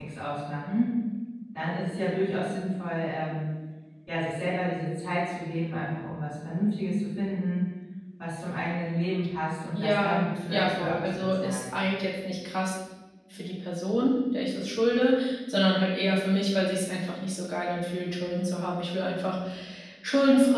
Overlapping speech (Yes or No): Yes